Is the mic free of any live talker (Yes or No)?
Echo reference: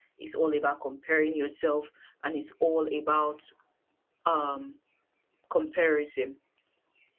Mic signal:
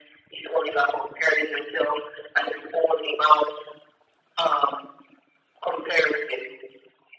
Yes